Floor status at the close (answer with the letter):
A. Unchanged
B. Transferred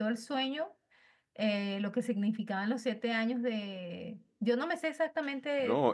B